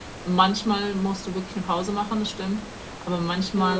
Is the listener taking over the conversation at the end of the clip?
No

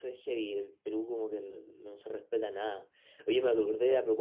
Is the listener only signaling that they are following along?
Yes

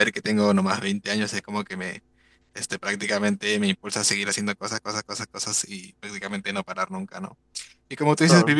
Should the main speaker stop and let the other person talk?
No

